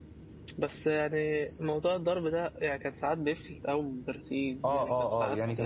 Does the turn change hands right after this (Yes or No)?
Yes